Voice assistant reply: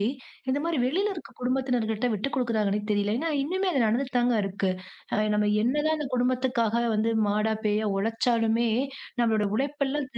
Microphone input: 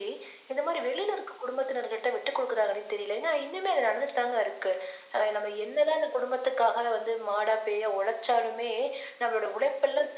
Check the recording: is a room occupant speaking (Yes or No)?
No